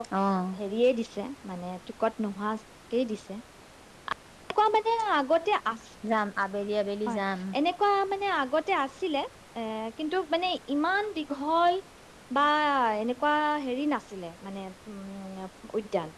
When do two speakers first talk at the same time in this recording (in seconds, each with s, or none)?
none